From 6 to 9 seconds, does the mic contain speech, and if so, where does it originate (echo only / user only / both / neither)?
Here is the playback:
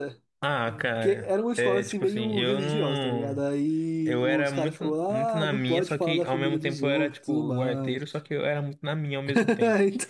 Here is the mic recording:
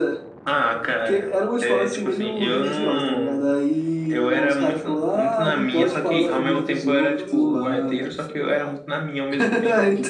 both